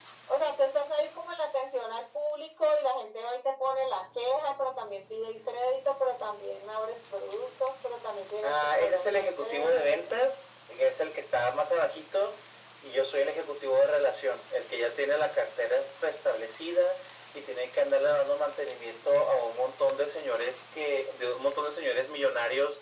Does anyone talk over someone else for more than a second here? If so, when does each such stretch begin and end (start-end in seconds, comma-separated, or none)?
8.4-10.0